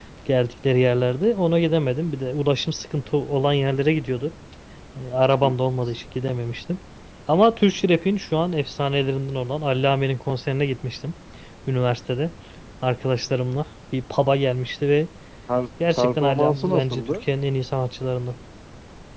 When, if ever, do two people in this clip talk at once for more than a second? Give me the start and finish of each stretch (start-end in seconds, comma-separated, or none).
16.0-17.2